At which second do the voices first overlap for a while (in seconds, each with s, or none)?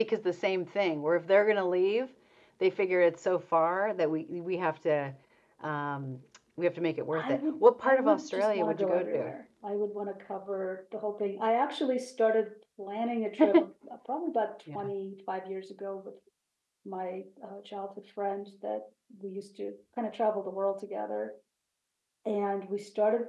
7.1 s